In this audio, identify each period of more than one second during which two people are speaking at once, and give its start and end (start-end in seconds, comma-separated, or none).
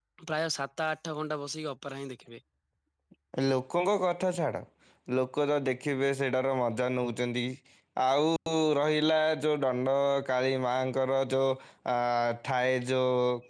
none